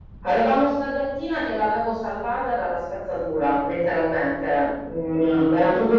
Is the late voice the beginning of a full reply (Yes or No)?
No